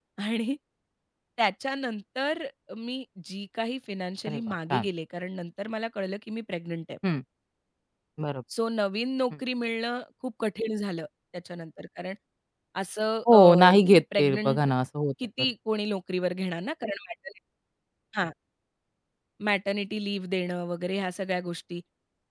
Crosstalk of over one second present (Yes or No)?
Yes